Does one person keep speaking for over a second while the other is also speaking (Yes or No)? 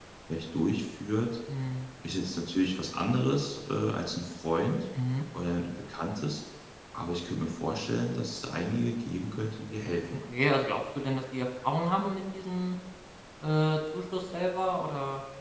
No